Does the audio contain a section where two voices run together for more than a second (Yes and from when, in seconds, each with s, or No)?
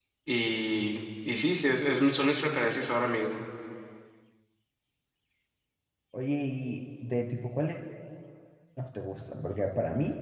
No